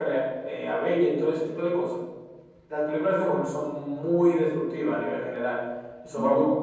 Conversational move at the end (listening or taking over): listening